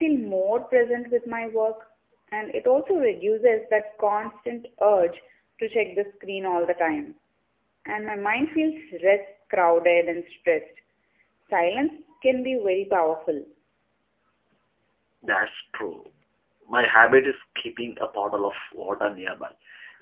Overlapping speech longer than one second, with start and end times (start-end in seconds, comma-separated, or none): none